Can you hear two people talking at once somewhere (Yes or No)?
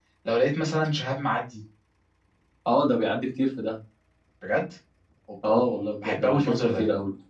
Yes